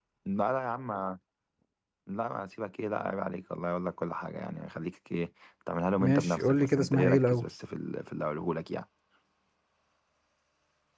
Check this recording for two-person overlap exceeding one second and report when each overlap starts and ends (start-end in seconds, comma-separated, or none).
6.0-7.5